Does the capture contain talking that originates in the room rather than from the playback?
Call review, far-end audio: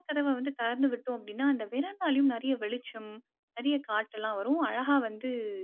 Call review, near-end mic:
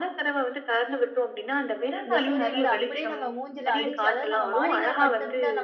Yes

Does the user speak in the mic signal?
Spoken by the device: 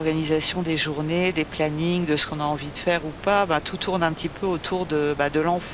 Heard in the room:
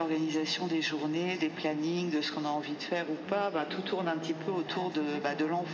Yes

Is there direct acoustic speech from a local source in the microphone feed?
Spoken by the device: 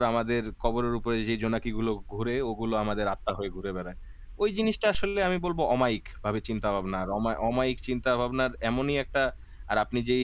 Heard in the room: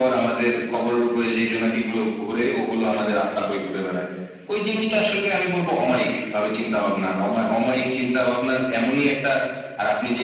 No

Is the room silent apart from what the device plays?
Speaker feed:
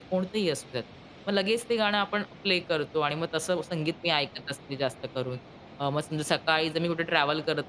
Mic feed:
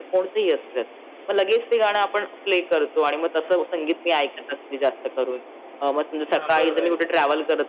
No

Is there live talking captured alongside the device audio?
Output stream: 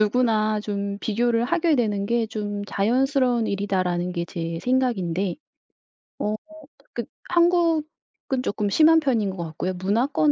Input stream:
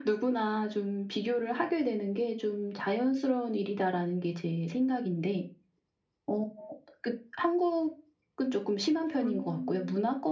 Yes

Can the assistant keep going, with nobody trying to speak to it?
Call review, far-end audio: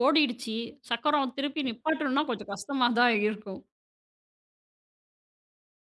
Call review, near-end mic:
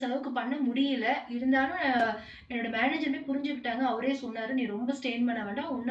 No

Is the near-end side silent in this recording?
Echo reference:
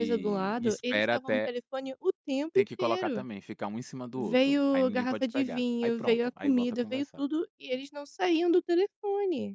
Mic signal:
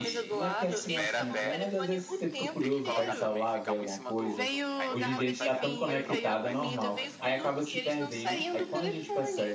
No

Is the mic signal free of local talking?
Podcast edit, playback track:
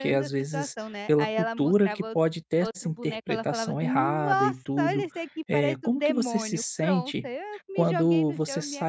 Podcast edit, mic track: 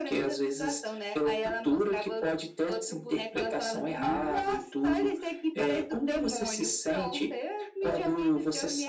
Yes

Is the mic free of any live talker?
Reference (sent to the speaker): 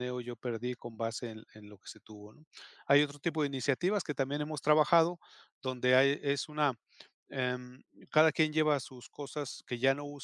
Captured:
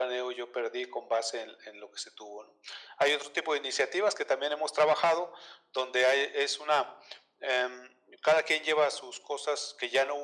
Yes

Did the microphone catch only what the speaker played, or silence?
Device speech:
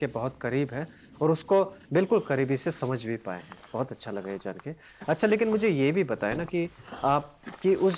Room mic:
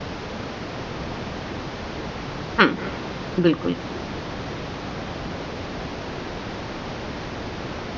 No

